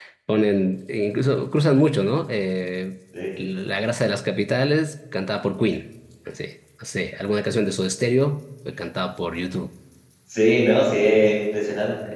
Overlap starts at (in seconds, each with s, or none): none